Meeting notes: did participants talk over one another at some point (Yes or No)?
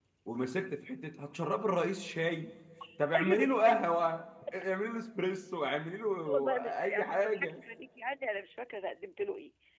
Yes